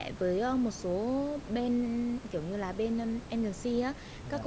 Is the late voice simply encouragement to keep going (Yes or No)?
Yes